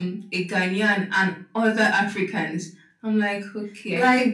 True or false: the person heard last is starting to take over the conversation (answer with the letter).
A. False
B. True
B